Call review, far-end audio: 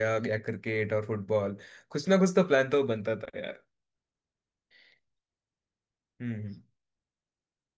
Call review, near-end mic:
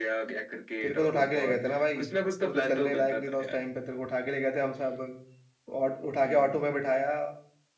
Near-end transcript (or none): तेरे को तो उठा के ले गए थे ना भाई तू तो चलने लायक नहीं था उस टाइम पे तेरे को उठा के ले गए थे हम सब और उठा के ऑटो में बिठाया